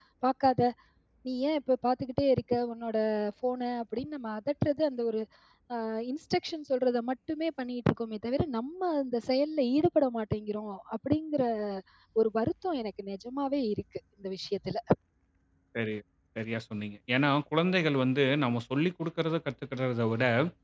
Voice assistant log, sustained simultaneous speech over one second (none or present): none